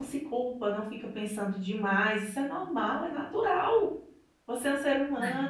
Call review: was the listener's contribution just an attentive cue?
Yes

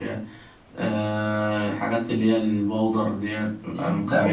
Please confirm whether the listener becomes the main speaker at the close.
Yes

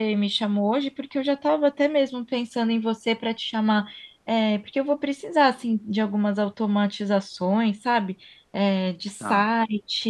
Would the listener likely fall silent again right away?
Yes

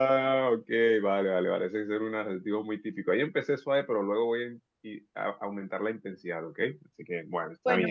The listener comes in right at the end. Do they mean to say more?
Yes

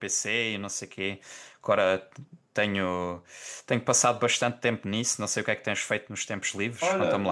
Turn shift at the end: Yes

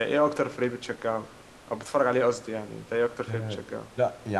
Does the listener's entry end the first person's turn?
Yes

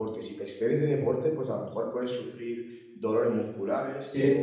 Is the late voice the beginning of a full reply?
No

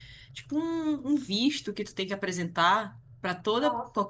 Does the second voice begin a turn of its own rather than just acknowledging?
No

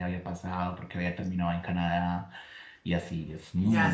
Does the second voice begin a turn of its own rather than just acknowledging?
Yes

